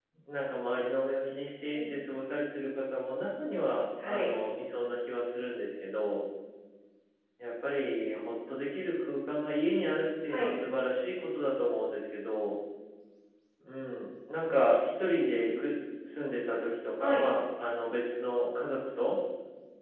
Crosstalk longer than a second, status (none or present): none